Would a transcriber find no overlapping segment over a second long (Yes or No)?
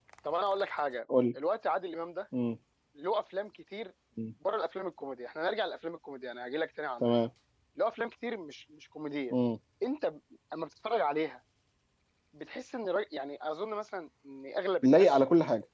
Yes